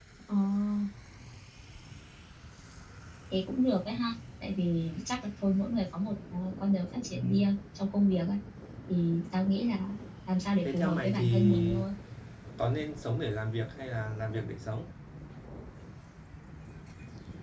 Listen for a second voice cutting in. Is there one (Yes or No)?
Yes